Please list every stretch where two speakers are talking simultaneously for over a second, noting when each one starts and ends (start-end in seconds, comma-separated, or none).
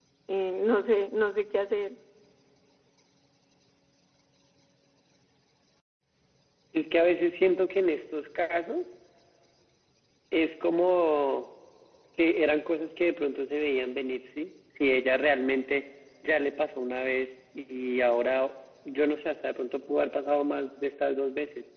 none